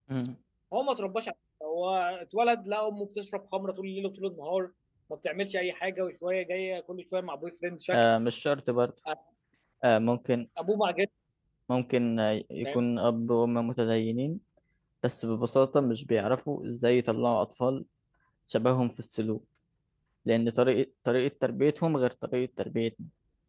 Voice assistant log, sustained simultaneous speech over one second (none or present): none